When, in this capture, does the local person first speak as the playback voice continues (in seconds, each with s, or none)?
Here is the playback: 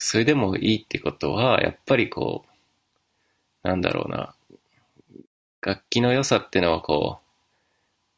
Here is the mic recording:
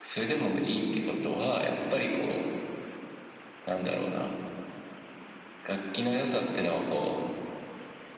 none